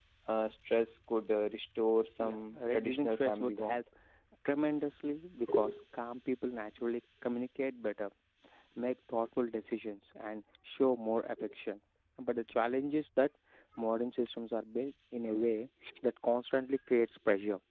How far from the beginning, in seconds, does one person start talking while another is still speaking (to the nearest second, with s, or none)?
2 s